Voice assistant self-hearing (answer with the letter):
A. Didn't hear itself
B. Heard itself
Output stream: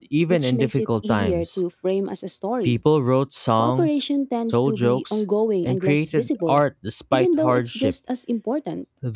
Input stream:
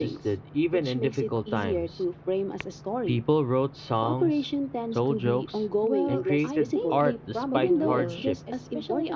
B